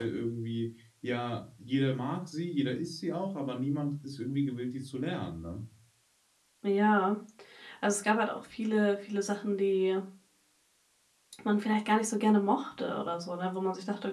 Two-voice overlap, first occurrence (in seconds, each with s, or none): none